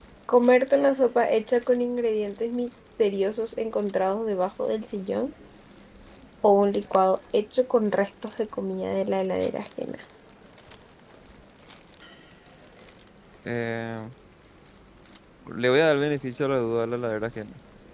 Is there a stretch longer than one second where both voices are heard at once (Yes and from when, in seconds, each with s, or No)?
No